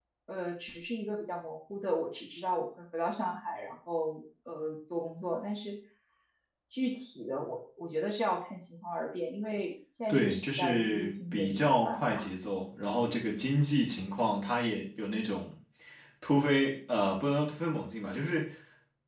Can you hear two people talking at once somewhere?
Yes, from 10.1 s

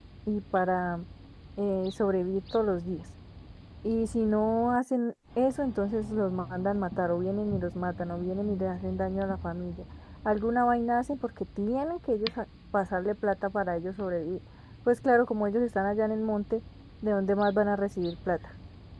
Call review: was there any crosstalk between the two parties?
No

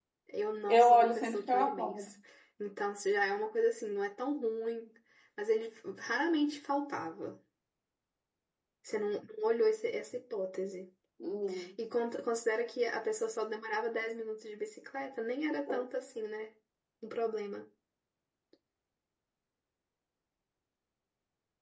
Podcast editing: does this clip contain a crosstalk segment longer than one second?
Yes, from 0.7 s

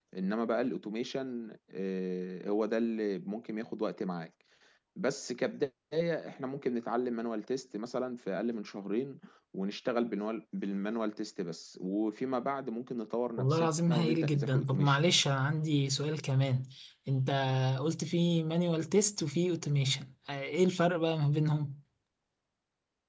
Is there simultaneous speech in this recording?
Yes, from 13.4 s

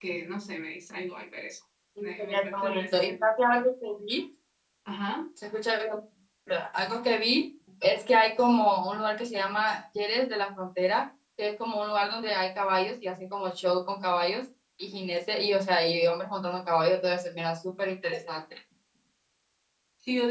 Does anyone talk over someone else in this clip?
Yes, from 2.0 s

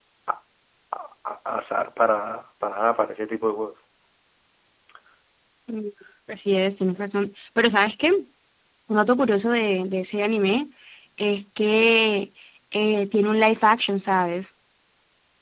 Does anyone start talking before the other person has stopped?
No

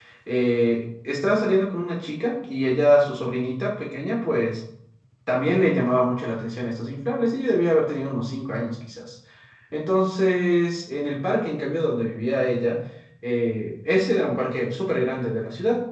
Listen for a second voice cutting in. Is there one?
No

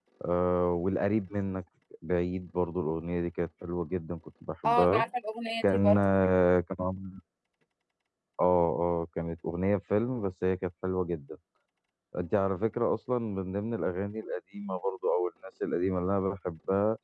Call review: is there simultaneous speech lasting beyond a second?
No

